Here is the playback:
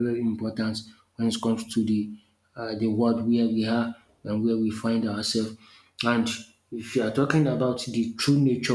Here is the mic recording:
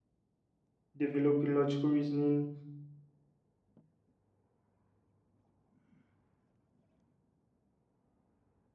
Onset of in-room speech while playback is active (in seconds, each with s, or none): 1.0 s